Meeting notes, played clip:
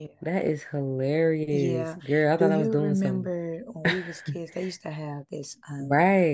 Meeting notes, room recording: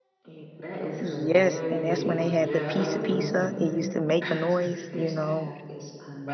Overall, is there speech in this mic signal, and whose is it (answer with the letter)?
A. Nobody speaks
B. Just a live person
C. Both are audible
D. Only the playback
C